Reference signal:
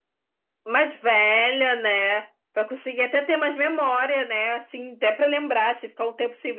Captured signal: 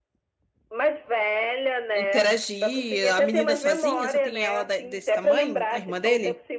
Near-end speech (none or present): present